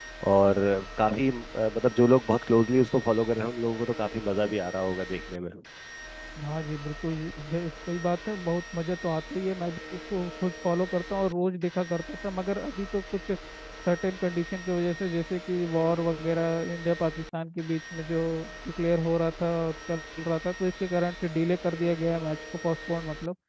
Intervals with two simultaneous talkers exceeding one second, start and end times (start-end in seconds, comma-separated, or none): none